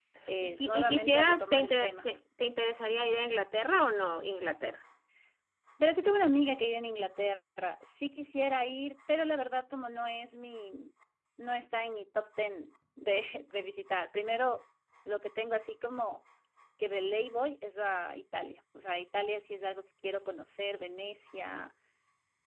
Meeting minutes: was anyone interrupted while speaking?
Yes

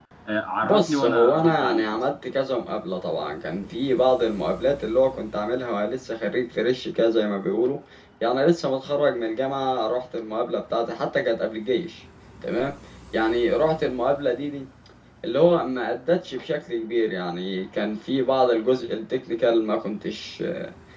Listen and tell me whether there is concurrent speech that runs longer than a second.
Yes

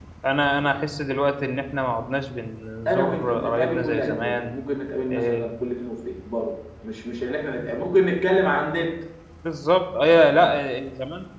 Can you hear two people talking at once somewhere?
Yes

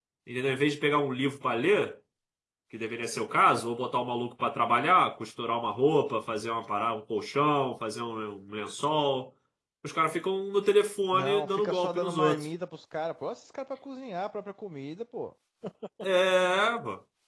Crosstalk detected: Yes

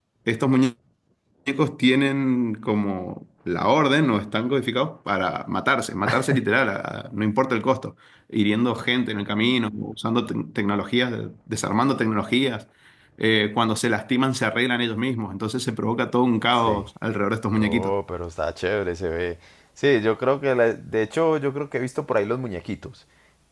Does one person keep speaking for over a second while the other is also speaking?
No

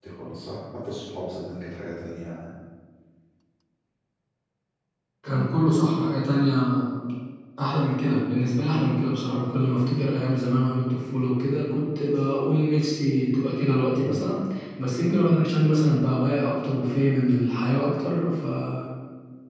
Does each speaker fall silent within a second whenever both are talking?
Yes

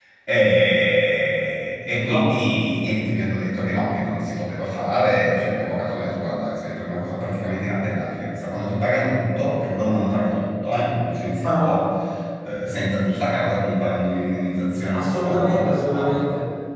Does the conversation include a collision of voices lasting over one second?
Yes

